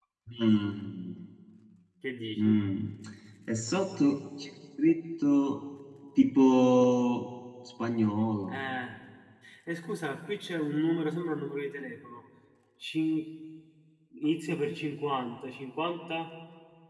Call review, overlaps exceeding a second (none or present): none